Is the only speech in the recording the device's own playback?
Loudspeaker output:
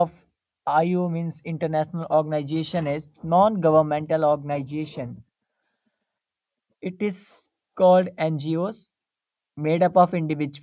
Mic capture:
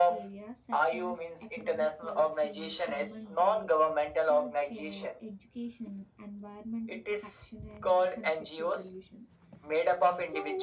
No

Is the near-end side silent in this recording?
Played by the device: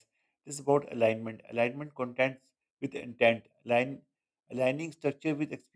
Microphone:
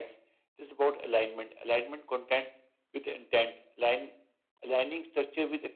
Yes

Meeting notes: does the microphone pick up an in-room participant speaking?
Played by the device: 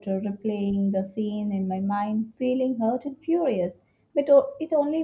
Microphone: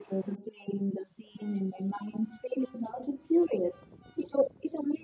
No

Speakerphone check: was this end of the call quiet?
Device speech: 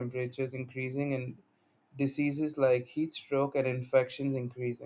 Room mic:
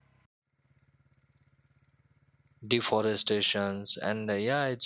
No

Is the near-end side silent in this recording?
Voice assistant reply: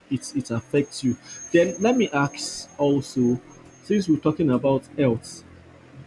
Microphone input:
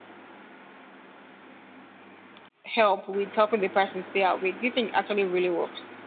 No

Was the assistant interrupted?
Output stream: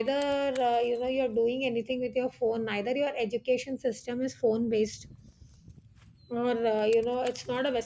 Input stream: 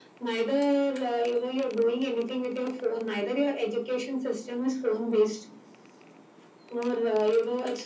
No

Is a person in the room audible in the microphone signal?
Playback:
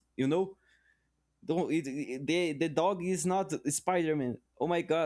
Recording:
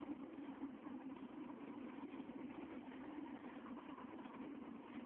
No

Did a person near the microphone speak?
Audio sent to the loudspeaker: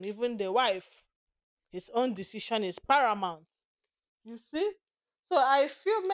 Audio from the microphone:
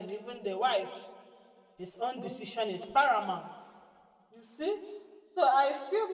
No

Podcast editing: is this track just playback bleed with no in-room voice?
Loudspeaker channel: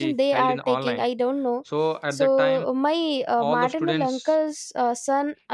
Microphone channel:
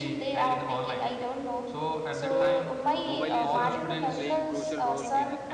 No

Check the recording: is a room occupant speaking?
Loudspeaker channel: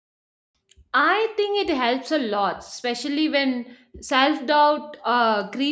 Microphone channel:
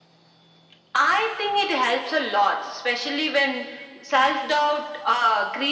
No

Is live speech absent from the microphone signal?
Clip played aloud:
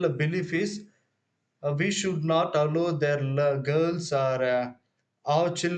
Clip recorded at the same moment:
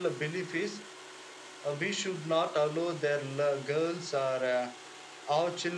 Yes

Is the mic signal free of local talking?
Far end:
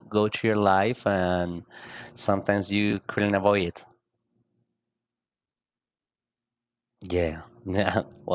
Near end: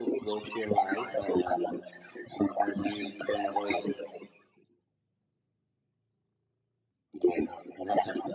Yes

